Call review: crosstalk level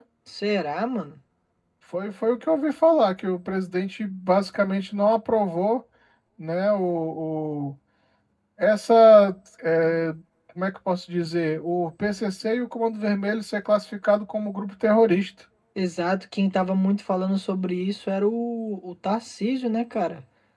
none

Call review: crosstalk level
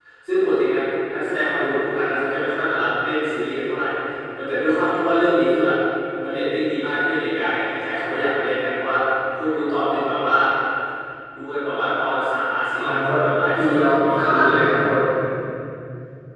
present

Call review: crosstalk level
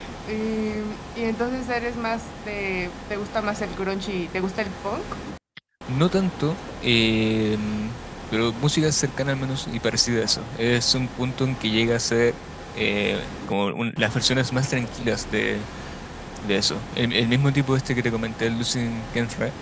none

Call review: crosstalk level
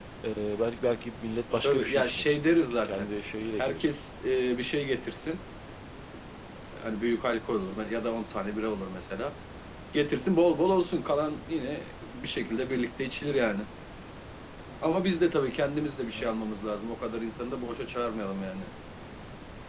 present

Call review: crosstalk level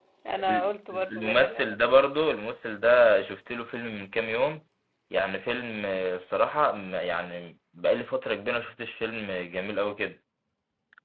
present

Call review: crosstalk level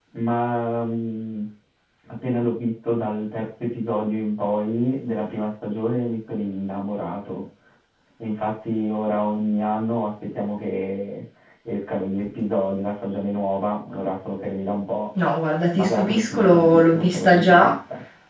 present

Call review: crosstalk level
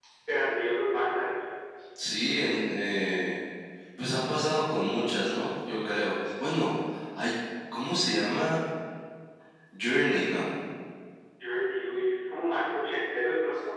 none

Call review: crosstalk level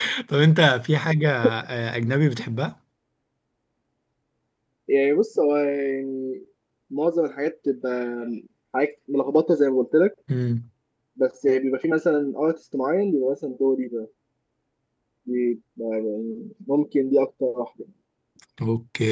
none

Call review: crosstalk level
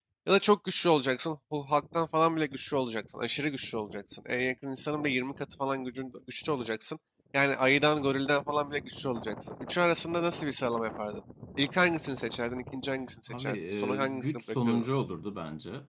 present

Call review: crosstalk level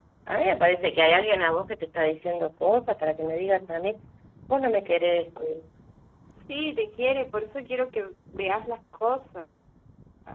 none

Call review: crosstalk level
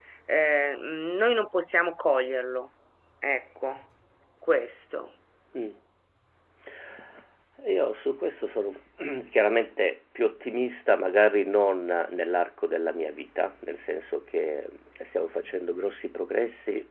none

